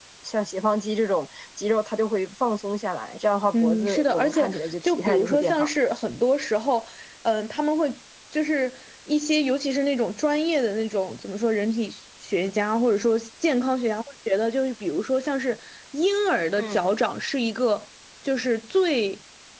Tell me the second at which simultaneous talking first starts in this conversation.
3.5 s

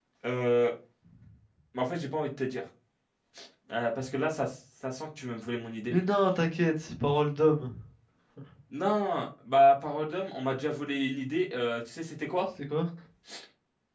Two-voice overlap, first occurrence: none

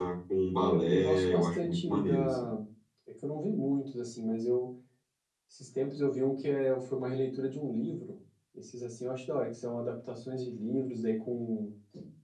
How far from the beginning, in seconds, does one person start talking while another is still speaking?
0.6 s

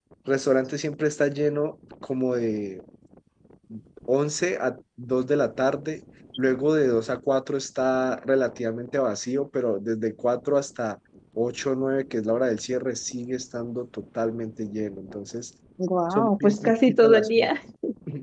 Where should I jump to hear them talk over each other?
16.1 s

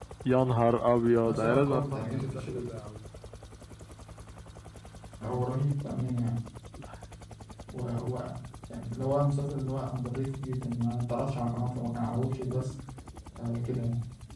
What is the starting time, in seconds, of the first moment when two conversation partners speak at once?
1.3 s

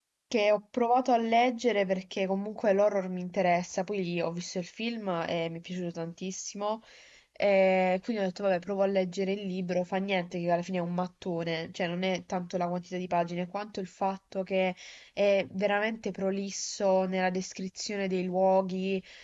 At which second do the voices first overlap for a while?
none

